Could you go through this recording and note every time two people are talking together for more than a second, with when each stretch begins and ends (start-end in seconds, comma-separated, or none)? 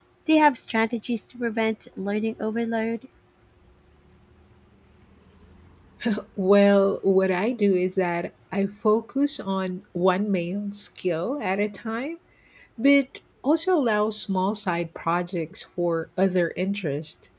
none